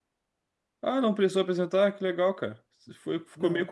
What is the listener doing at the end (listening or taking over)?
listening